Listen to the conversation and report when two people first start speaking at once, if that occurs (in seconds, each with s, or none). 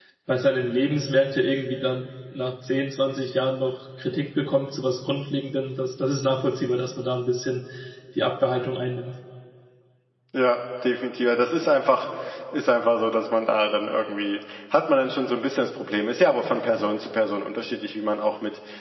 none